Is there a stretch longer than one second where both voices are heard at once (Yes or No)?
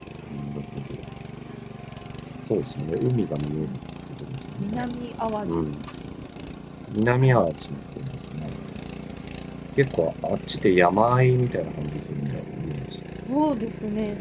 No